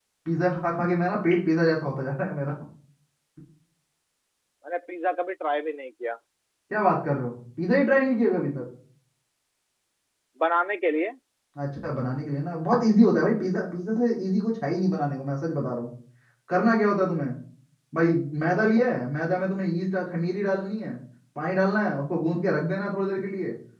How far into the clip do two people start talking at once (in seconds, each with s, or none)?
none